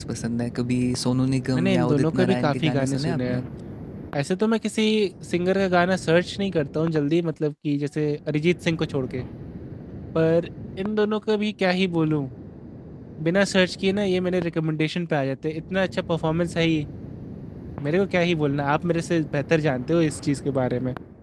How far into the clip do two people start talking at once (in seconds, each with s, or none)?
1.5 s